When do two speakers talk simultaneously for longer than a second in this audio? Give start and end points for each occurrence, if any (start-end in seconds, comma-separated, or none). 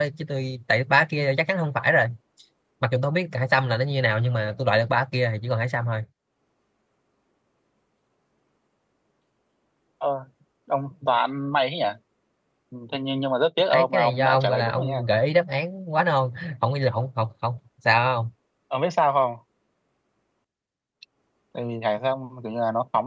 13.7-15.0